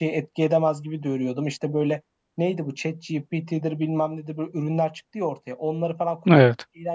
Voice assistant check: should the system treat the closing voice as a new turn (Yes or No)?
No